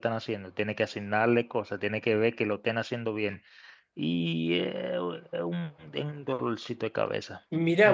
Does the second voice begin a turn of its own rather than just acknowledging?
Yes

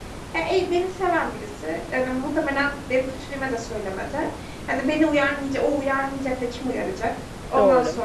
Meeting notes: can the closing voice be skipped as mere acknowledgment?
Yes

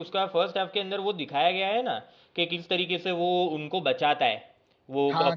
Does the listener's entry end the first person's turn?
Yes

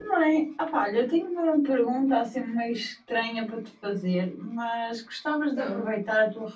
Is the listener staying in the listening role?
Yes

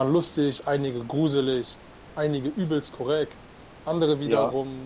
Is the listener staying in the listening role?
Yes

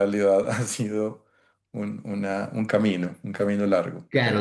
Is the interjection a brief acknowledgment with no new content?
No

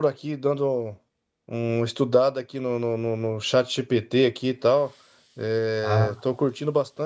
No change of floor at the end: Yes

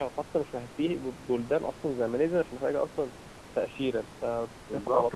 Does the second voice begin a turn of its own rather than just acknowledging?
Yes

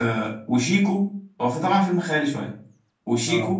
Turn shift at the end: No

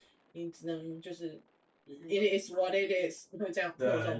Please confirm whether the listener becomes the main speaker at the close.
Yes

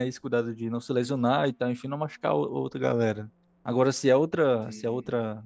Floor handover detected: No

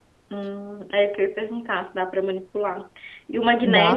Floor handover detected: No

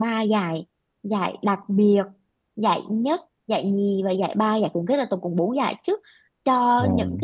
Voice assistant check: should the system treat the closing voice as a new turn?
No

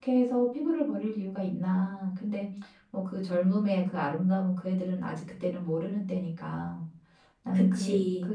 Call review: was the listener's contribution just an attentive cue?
Yes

